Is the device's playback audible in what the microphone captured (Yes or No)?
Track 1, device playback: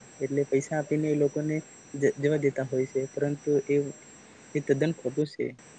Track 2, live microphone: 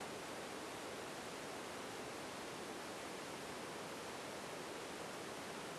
No